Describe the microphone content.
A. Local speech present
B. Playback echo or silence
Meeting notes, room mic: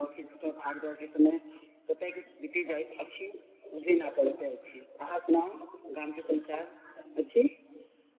B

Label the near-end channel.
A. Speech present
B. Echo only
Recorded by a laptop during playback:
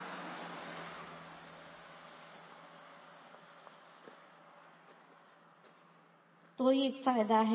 A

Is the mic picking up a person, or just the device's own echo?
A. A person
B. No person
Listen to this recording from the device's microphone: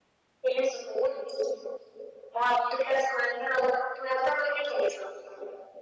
B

